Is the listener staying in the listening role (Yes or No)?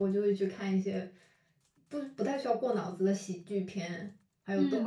No